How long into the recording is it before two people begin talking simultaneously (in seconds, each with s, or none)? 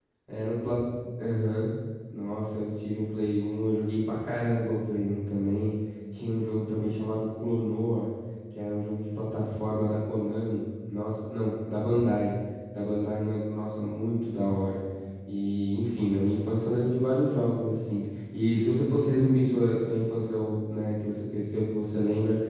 none